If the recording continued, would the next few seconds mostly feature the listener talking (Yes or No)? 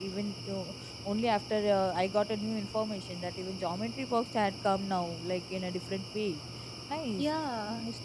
Yes